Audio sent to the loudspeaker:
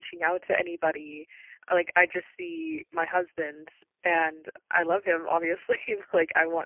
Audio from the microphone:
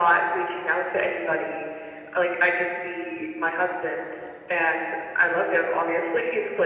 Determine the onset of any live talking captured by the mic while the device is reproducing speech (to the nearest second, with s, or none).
none